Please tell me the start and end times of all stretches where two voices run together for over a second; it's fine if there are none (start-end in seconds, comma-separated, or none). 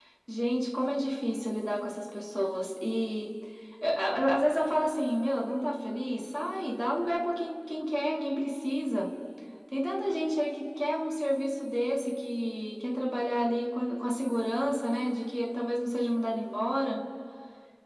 none